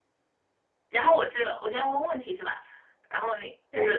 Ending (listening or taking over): taking over